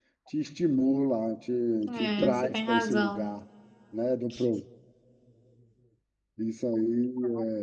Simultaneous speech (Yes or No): Yes